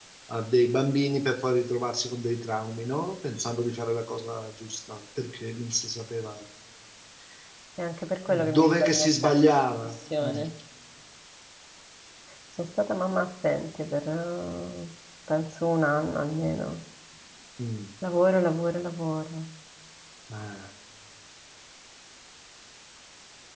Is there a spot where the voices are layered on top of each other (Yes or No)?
Yes